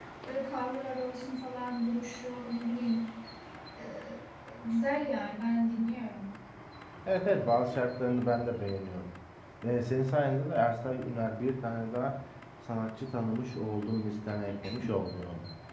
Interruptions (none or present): none